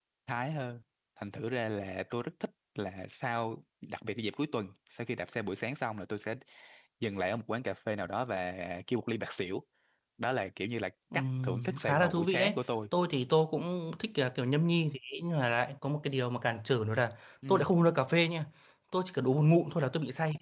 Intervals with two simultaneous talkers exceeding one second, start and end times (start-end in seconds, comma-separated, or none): 11.1-12.6